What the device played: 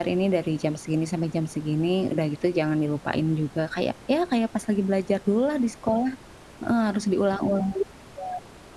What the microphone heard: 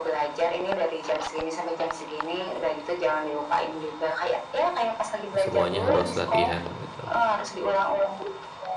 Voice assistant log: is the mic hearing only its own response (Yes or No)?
No